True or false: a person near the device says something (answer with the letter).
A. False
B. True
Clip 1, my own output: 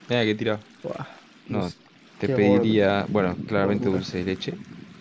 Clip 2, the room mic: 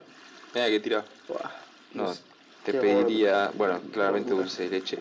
A